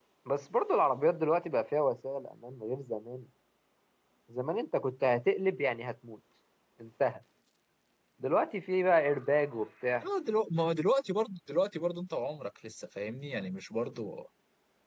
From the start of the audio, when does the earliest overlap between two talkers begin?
none

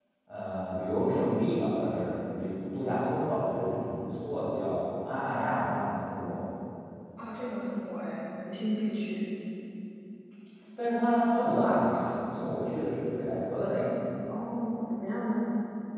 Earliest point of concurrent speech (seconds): none

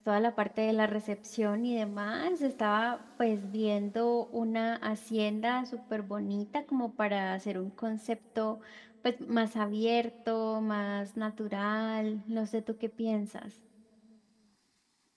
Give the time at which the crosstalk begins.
none

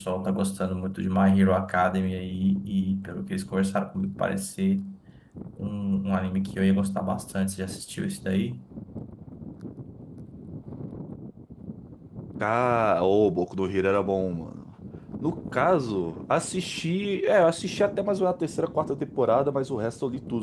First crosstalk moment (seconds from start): none

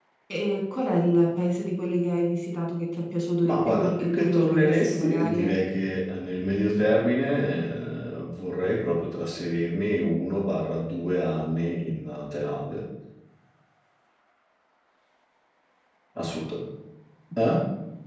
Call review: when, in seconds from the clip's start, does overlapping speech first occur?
3.5 s

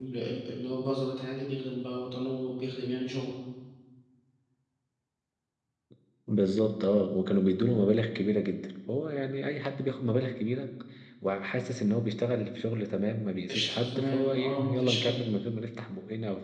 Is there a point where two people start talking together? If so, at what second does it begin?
13.5 s

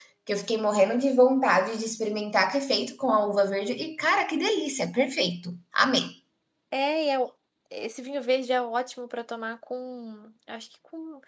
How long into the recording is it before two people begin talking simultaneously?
none

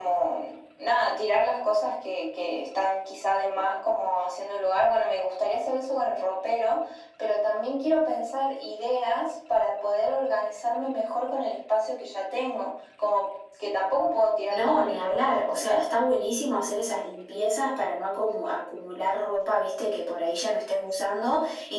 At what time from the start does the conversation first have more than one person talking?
14.5 s

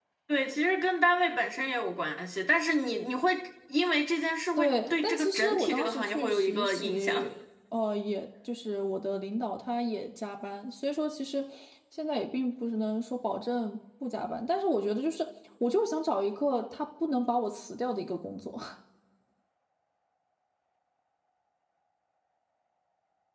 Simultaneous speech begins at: 4.6 s

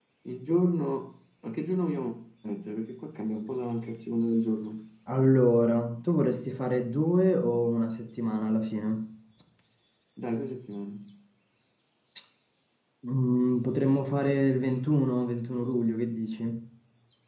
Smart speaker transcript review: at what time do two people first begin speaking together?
none

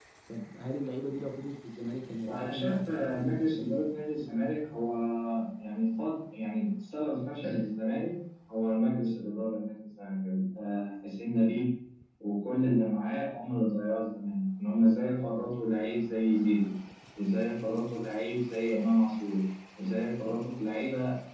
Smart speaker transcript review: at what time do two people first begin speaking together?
2.2 s

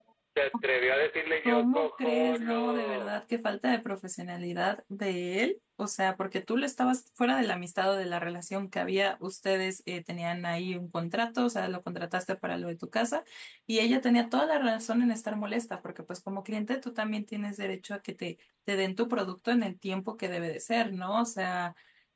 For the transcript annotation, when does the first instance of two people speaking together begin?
1.4 s

